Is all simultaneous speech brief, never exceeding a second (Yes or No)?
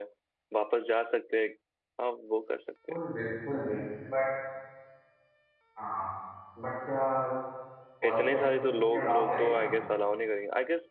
No